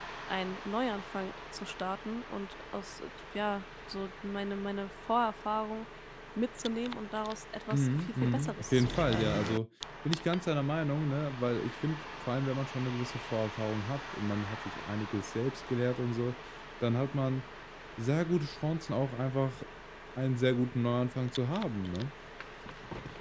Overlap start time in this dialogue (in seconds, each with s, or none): 7.7 s